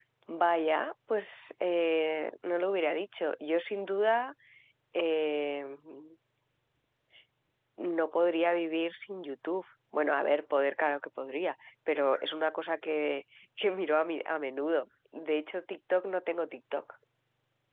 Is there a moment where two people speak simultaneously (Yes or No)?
No